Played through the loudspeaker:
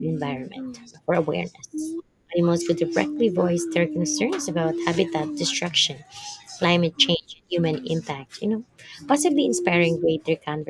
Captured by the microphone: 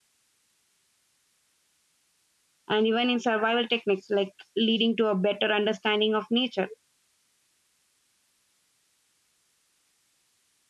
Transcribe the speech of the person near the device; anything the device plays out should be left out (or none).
and even in survival techniques like leading to a better understanding of nature